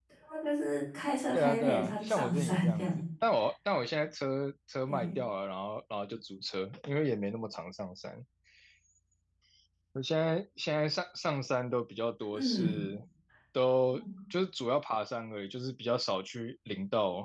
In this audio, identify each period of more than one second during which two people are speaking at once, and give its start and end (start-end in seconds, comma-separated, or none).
1.3-3.0